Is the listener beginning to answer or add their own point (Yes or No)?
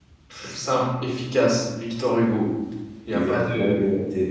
Yes